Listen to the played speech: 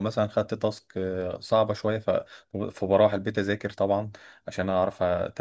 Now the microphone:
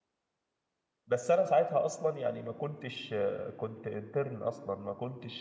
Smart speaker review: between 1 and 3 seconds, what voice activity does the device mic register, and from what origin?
user only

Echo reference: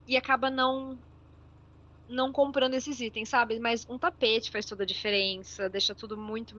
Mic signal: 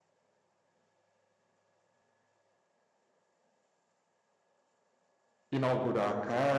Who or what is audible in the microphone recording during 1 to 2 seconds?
neither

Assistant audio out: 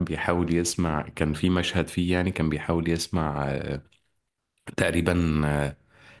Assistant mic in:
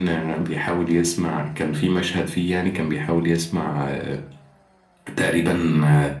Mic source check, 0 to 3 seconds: echo only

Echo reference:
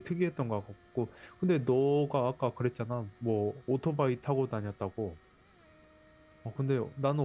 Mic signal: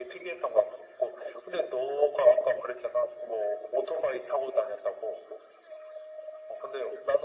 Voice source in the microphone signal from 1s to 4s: echo only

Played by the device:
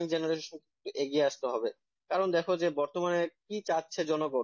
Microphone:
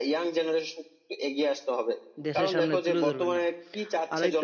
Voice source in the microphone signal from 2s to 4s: both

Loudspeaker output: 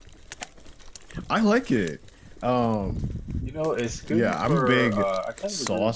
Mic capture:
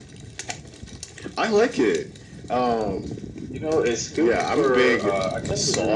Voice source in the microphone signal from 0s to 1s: neither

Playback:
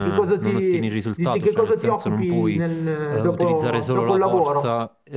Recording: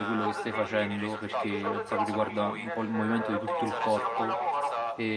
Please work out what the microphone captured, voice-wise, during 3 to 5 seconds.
both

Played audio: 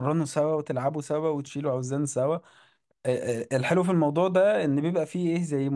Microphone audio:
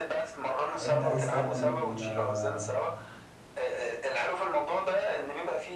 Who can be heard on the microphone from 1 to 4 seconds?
both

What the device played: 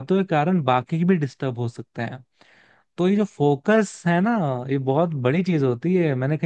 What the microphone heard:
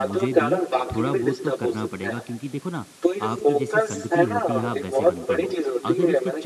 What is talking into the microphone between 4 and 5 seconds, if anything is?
both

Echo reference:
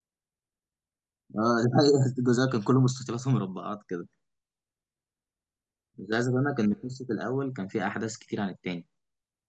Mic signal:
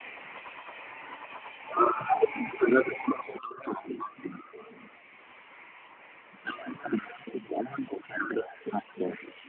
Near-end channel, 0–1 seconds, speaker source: neither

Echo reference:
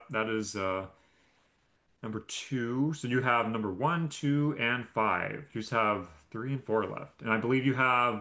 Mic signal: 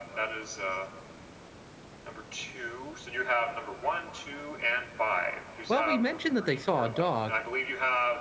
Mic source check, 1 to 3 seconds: echo only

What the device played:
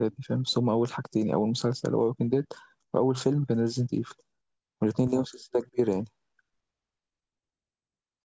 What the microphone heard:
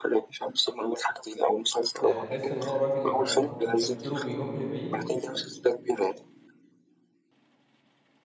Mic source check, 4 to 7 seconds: both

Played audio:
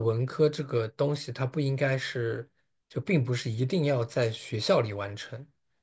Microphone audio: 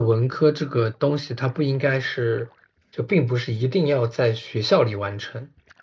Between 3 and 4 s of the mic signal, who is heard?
echo only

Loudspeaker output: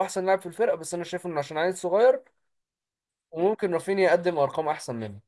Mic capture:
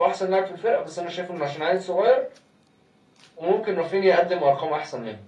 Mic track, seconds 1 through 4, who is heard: echo only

